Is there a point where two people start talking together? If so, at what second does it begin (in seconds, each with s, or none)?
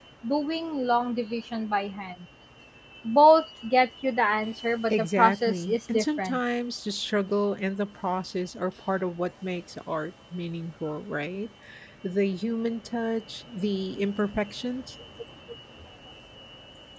4.9 s